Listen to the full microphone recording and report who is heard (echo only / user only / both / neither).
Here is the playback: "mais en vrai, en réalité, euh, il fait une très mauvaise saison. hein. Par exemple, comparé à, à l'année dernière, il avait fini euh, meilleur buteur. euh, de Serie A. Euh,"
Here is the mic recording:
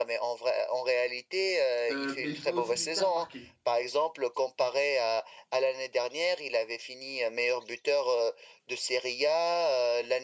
both